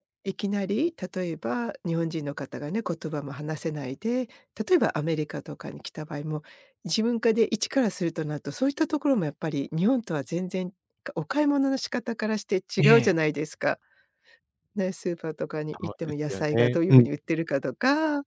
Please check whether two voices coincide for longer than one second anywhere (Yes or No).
Yes